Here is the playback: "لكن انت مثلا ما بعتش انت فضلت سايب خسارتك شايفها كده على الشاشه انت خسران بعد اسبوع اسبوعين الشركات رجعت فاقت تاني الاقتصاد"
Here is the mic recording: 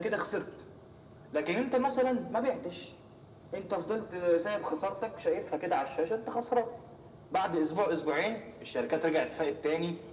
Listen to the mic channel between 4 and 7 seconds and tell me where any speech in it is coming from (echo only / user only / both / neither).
echo only